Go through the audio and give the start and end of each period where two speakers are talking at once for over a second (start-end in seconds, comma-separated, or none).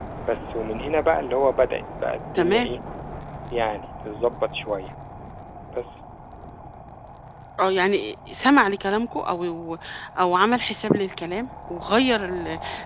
none